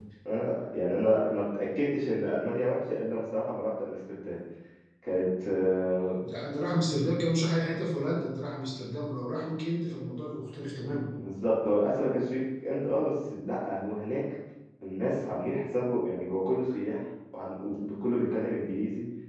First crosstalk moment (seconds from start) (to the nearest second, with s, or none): none